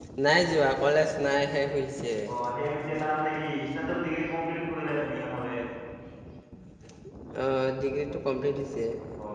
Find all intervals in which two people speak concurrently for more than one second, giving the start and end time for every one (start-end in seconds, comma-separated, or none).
none